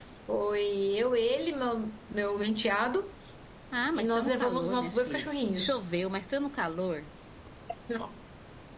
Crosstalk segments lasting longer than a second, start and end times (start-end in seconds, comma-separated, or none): 4.0-5.8